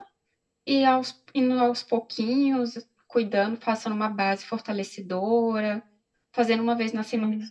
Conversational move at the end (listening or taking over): listening